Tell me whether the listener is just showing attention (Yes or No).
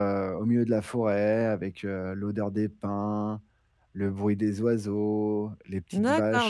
No